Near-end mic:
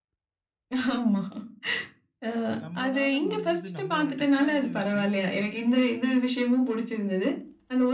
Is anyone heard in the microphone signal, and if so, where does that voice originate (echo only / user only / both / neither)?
both